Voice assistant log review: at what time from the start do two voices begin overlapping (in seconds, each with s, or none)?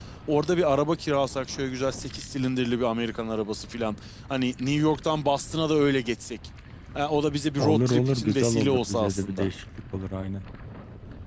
7.6 s